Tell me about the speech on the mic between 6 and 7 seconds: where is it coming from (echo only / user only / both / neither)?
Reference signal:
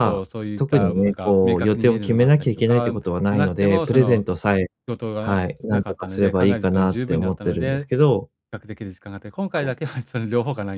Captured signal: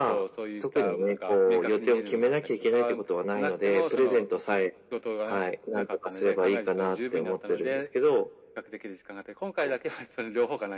echo only